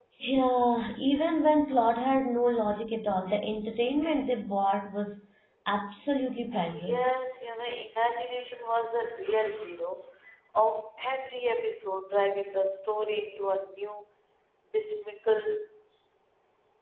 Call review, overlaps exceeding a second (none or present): none